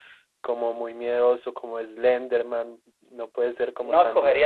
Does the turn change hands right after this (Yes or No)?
Yes